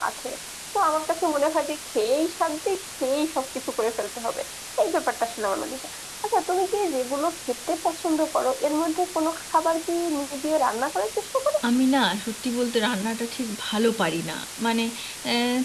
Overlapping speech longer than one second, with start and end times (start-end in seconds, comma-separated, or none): none